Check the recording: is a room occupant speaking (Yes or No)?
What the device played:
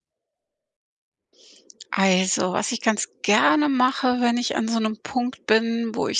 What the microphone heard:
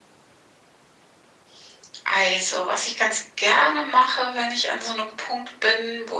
No